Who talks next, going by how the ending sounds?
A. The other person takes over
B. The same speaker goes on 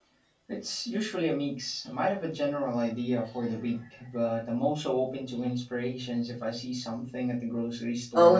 A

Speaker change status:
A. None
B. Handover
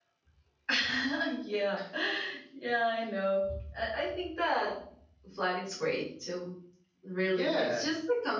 A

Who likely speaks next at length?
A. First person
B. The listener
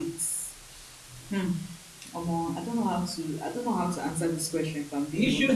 B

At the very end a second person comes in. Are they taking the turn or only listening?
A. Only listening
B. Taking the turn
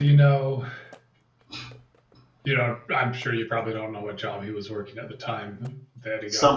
B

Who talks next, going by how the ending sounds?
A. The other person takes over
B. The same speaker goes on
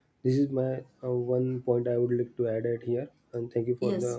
A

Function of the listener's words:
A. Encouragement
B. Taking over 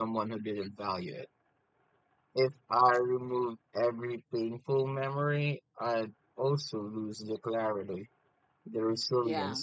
A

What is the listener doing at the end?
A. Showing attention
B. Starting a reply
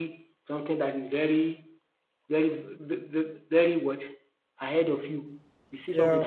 A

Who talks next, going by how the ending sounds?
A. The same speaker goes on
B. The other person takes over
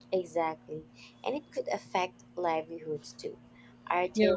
A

